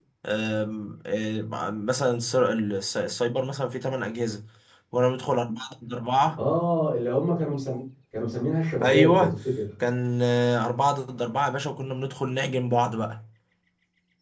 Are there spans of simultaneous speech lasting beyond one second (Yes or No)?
No